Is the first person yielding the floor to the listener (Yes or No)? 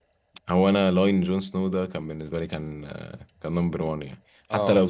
No